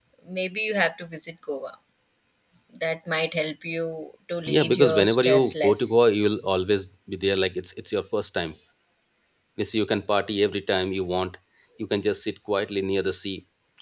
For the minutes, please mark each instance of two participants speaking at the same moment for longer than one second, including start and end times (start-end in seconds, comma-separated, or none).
4.5-6.0